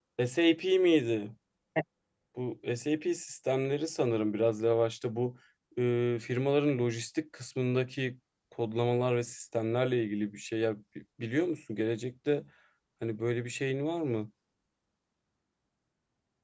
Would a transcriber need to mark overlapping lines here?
No

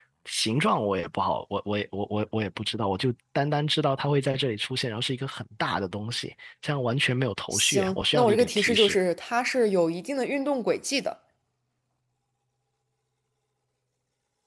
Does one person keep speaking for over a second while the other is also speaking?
Yes, from 7.5 s

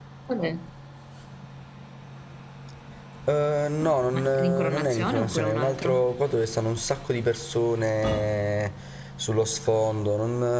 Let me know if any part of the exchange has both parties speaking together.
Yes, from 4.1 s

